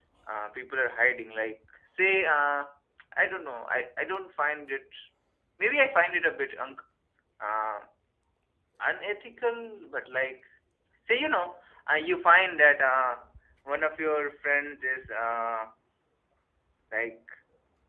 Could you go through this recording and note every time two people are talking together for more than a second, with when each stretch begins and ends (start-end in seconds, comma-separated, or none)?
none